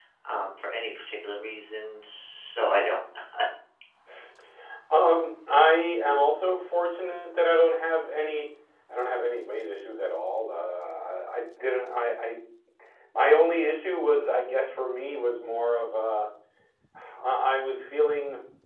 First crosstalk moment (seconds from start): none

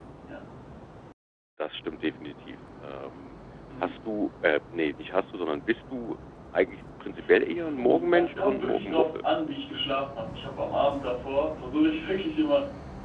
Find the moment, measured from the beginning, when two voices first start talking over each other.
8 s

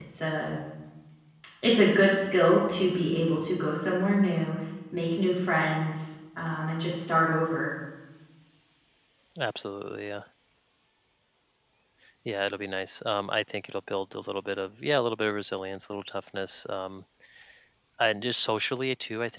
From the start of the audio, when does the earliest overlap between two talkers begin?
none

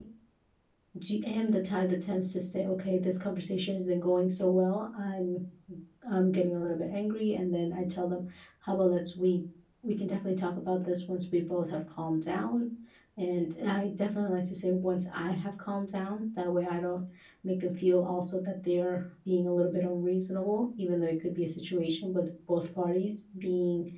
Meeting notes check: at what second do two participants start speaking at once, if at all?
none

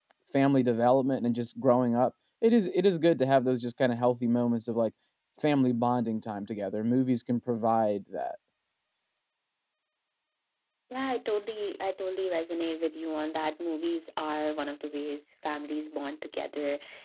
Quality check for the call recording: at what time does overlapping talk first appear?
none

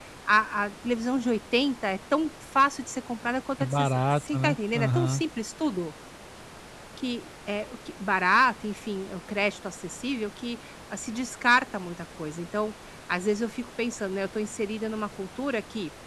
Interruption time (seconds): 4 s

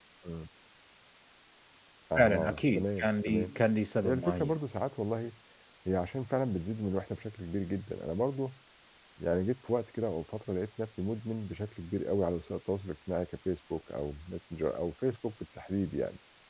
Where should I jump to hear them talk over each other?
2 s

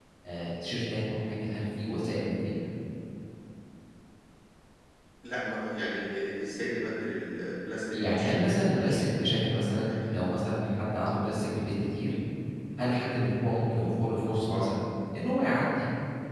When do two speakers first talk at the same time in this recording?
8 s

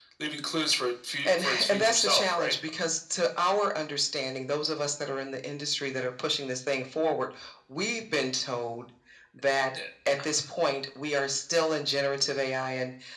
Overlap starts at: 1 s

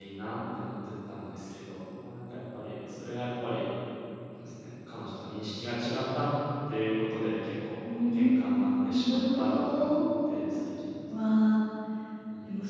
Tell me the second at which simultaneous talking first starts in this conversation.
8 s

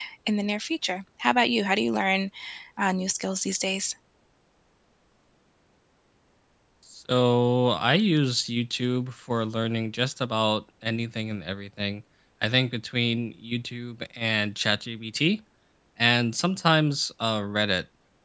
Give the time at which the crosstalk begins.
none

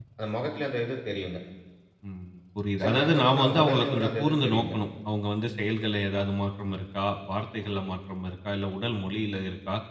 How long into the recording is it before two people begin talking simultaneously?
3 s

